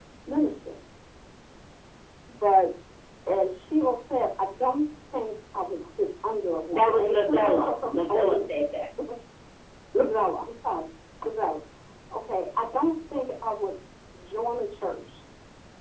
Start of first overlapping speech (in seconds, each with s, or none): 6.7 s